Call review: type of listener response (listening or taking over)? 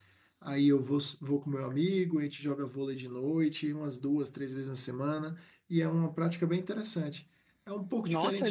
taking over